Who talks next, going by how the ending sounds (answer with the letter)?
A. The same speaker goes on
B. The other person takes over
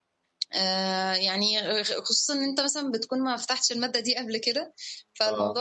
A